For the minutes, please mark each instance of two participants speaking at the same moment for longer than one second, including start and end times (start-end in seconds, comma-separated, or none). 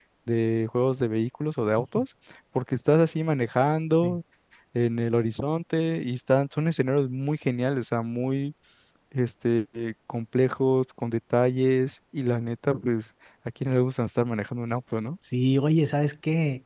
none